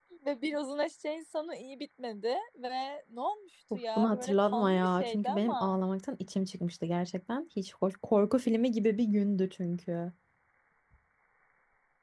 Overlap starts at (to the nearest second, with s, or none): 4 s